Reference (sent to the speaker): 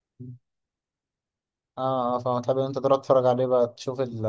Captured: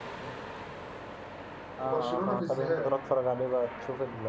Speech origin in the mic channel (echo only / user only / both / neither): both